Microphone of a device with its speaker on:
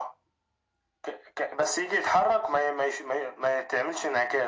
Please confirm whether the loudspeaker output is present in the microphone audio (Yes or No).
Yes